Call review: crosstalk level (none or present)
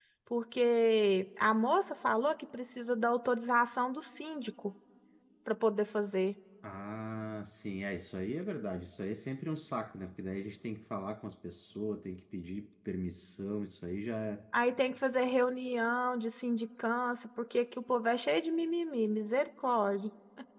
none